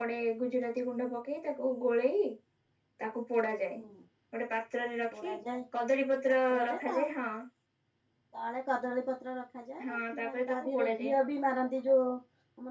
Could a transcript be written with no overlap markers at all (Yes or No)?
No